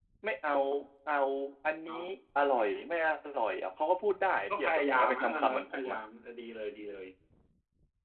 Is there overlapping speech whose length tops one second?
Yes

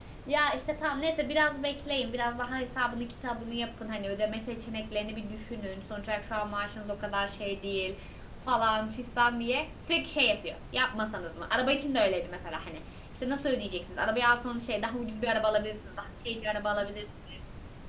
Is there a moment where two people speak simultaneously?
No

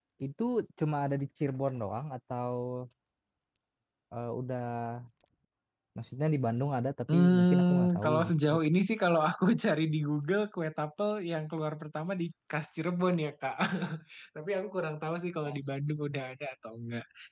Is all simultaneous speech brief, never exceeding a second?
No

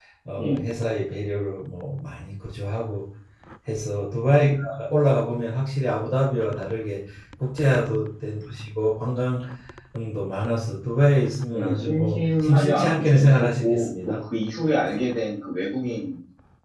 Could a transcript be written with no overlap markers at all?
No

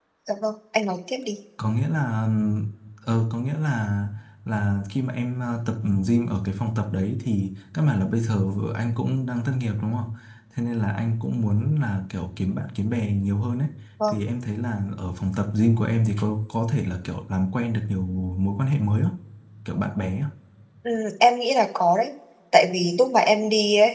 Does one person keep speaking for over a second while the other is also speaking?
No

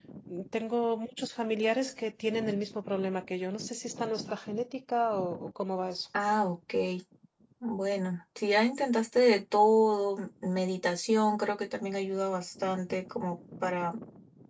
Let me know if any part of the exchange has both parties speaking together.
No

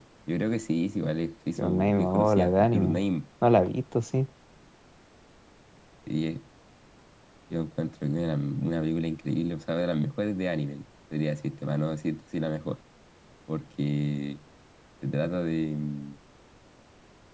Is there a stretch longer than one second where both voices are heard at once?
Yes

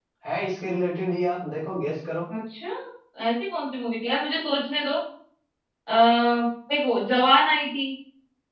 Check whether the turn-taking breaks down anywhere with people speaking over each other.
No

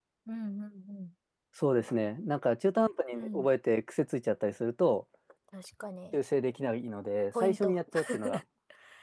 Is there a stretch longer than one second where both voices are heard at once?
No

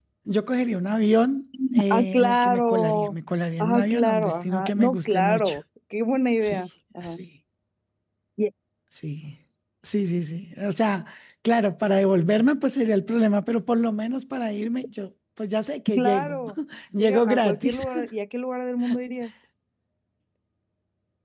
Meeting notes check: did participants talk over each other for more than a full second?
Yes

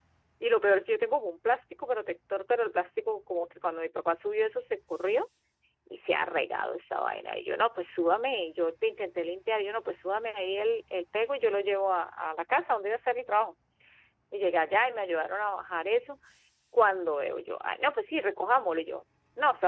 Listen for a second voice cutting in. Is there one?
No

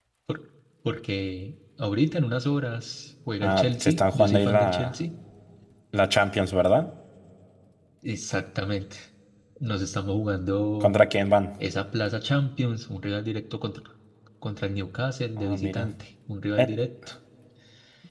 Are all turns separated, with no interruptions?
No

